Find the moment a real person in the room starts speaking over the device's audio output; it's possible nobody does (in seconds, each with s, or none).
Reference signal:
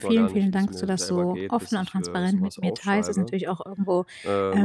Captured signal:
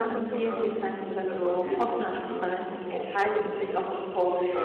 none